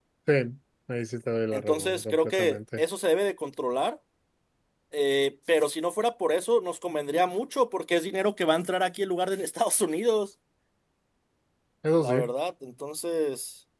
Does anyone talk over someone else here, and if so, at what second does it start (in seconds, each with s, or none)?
1.5 s